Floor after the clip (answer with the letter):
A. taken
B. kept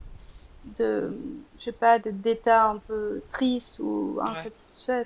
B